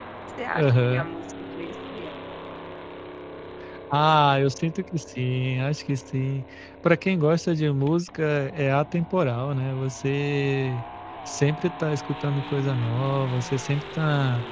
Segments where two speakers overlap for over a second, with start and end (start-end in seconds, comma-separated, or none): none